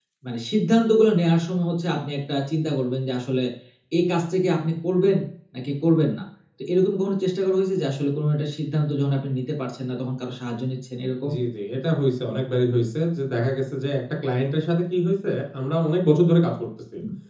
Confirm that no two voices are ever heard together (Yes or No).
Yes